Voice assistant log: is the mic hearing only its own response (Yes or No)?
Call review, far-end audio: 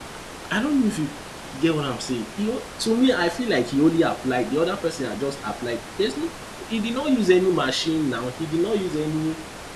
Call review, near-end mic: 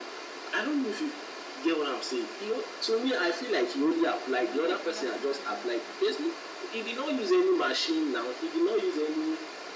No